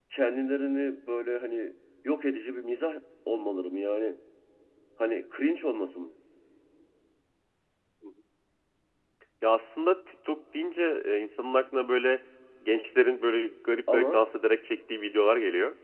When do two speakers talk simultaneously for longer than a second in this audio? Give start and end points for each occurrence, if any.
none

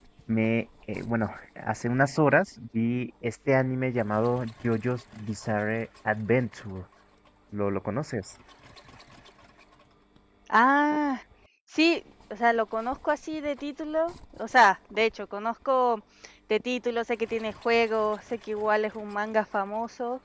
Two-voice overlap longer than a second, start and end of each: none

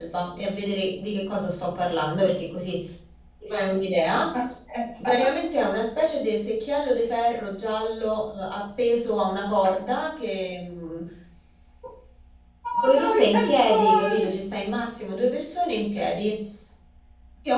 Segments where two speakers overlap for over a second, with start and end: 12.7-14.3

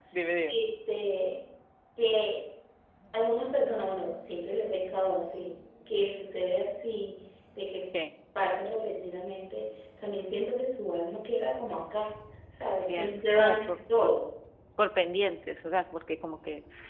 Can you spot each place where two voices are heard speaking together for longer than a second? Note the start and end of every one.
12.9-14.1

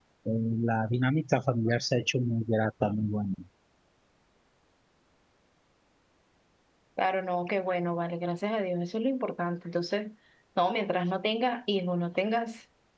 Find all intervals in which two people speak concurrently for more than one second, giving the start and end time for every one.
none

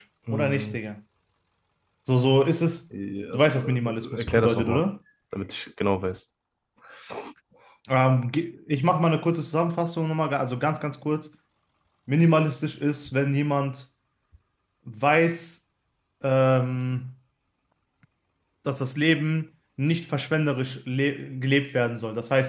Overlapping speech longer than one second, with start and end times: 3.3-4.8

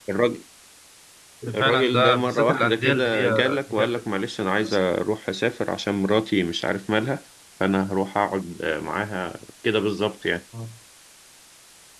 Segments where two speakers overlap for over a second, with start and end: 1.6-4.0

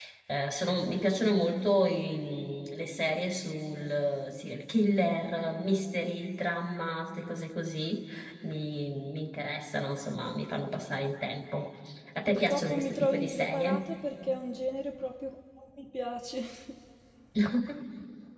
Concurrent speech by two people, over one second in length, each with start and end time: 12.3-13.8

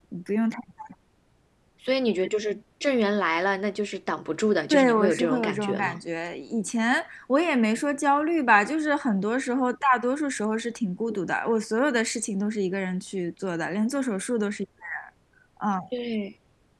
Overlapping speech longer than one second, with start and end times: 4.7-6.0

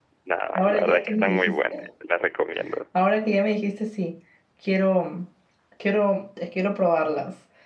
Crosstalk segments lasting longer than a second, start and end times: 0.6-1.9

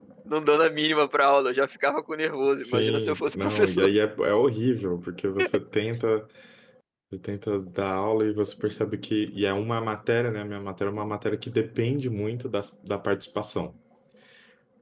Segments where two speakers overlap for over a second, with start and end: 2.6-3.9

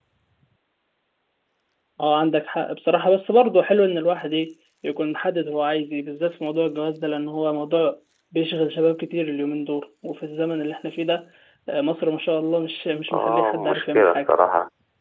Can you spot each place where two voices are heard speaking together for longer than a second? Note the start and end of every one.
13.1-14.3

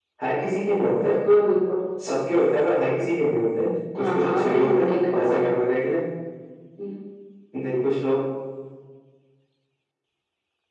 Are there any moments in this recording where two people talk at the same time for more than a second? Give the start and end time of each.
4.0-5.5

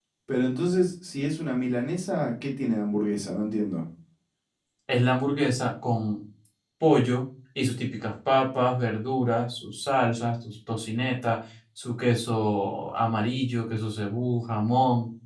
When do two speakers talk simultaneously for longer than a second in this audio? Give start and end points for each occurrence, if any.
none

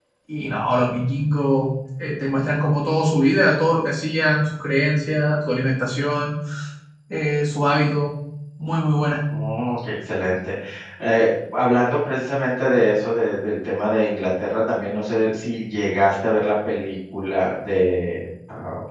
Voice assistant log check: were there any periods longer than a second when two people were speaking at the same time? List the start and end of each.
none

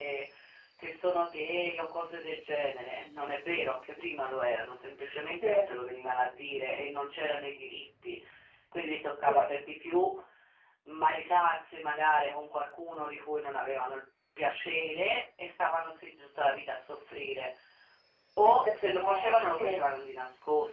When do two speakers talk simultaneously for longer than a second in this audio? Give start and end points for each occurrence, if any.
18.4-19.8

